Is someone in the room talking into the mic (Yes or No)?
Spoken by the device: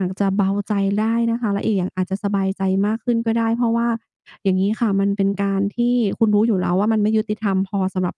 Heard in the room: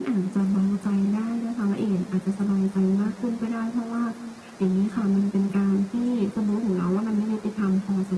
No